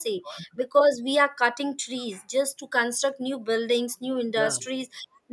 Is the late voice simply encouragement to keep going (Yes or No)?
Yes